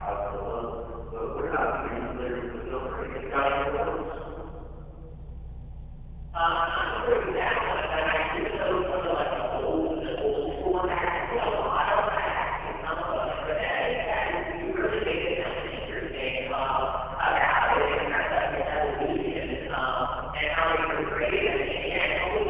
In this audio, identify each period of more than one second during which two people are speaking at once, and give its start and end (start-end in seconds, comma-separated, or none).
none